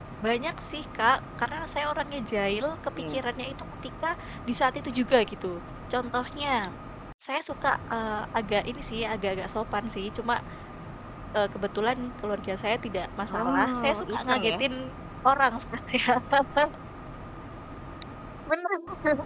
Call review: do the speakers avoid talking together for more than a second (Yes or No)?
No